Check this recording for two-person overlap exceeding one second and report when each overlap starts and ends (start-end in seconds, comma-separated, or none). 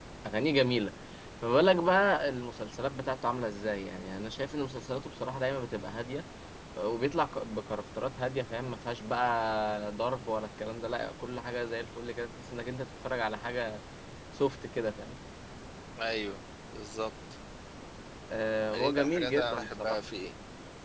18.7-20.0